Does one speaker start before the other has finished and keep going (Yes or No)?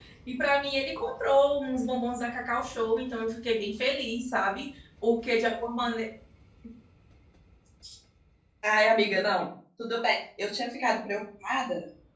No